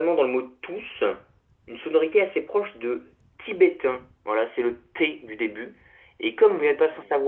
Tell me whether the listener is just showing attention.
Yes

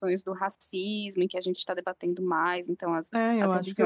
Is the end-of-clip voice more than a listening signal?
Yes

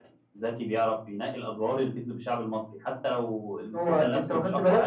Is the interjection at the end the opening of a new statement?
Yes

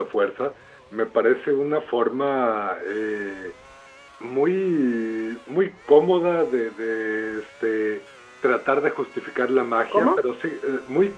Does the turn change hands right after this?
No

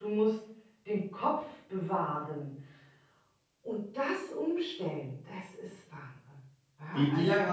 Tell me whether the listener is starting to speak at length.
Yes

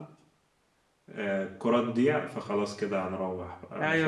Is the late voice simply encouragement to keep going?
No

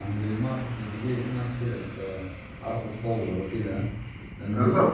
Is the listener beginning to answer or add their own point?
Yes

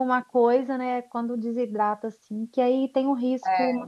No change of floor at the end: Yes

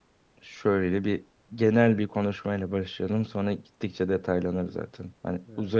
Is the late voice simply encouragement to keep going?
Yes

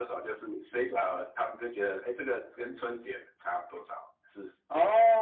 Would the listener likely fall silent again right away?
No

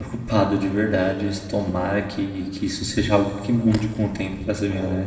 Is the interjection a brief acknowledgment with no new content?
No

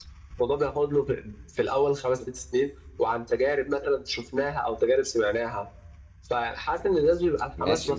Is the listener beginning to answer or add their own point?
Yes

